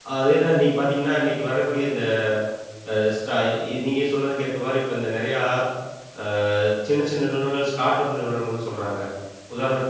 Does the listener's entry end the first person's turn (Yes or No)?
No